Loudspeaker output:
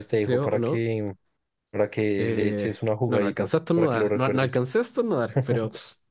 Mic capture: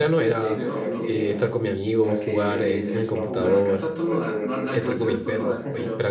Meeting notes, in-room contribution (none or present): present